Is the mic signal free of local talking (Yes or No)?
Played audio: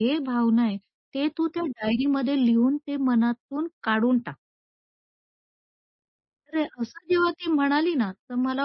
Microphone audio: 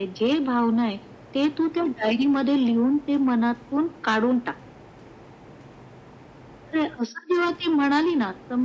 Yes